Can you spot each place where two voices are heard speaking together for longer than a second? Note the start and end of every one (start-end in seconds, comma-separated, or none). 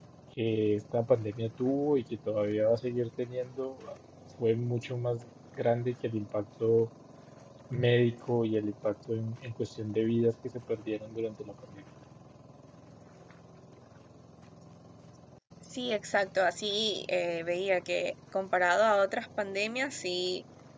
none